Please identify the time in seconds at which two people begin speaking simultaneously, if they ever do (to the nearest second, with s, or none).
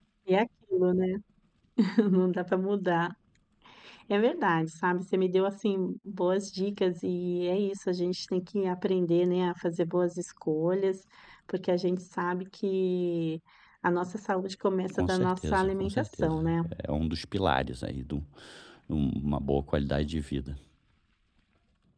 15 s